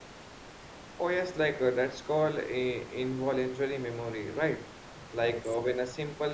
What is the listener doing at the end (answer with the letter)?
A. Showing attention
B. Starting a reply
A